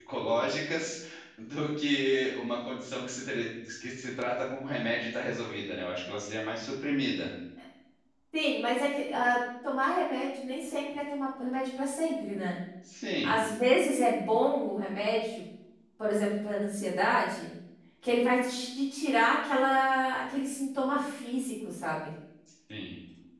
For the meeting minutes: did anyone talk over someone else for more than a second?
No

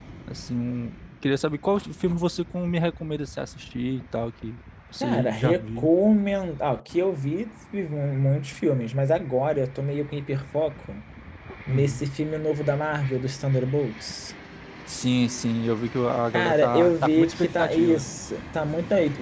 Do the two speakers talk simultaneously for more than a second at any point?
Yes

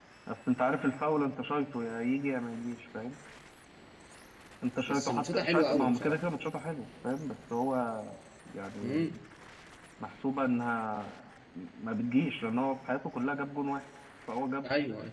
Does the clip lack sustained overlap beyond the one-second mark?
No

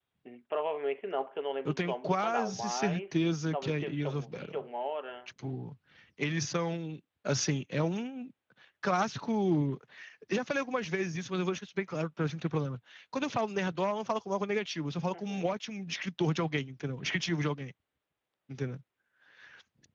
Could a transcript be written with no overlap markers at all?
No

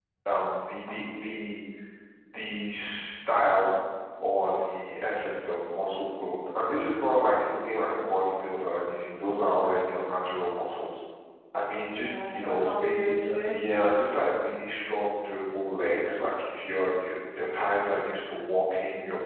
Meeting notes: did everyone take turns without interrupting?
No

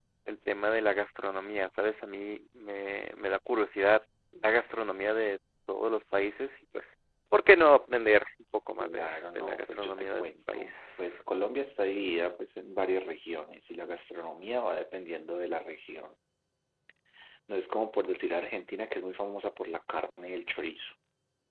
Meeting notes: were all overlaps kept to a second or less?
No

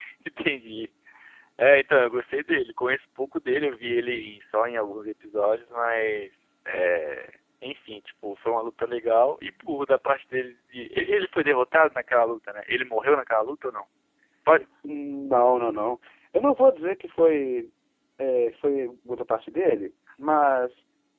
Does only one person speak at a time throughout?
Yes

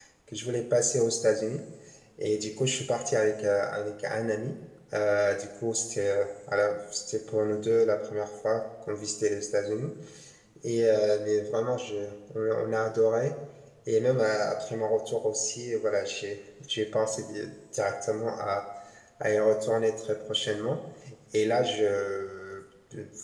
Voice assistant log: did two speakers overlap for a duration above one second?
No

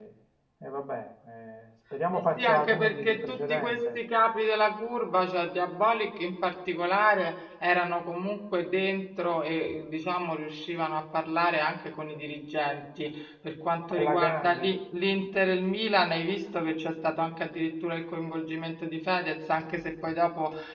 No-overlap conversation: No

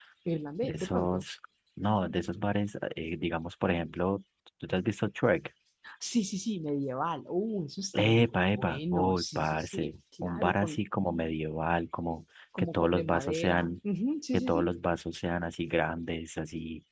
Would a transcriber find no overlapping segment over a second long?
No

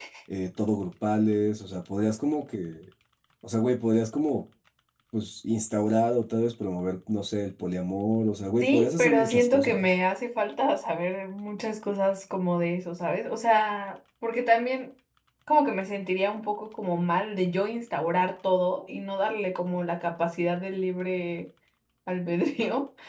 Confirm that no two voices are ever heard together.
No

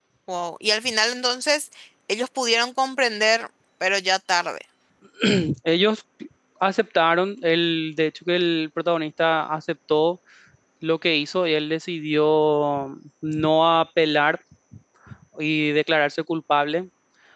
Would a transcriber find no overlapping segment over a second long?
Yes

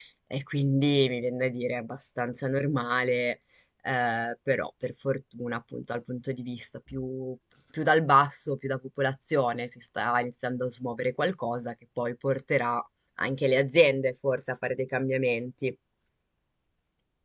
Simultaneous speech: No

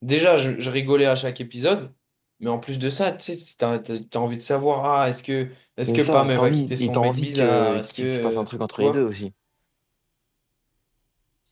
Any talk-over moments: Yes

